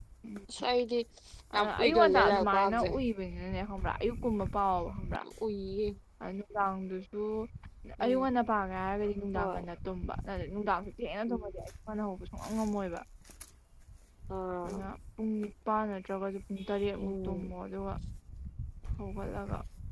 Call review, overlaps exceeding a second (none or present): present